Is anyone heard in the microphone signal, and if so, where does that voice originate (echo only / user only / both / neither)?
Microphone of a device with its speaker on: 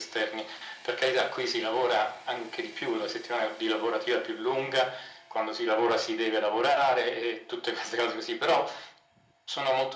echo only